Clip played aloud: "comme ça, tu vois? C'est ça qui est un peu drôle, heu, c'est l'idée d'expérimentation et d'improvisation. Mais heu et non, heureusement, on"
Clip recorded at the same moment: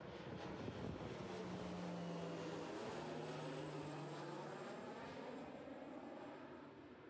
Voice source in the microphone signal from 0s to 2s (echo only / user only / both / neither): neither